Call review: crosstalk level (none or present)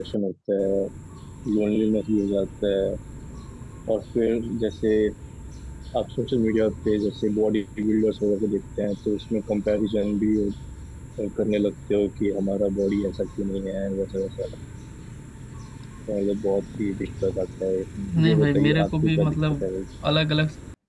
present